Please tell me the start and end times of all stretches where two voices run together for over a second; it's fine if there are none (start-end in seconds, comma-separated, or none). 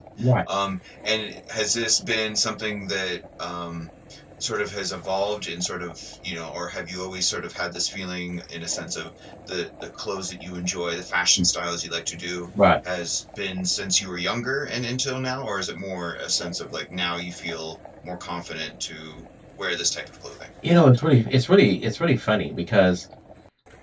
none